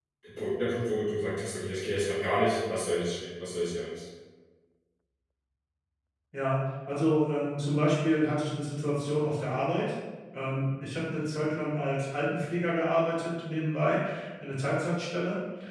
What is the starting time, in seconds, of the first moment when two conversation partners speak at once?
none

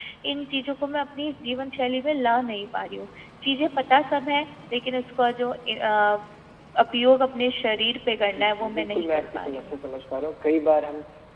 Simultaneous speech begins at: 8.2 s

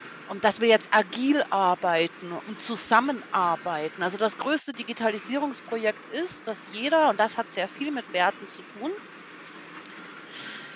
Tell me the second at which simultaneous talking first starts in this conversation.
none

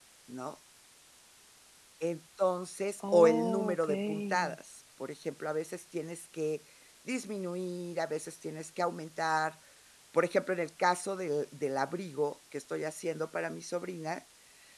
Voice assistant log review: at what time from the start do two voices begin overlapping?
3.0 s

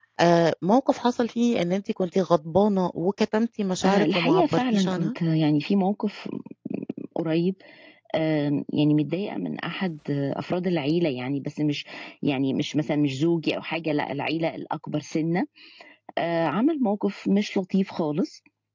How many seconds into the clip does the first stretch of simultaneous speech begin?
3.8 s

